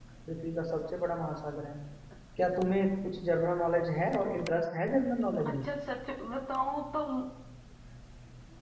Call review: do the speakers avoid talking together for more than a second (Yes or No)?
Yes